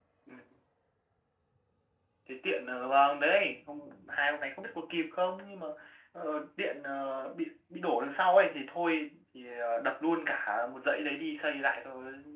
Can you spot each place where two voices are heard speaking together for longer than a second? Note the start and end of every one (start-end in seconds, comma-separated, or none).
none